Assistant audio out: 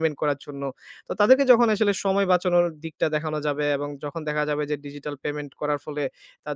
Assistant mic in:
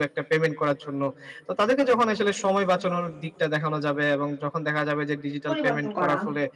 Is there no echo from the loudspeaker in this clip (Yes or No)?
No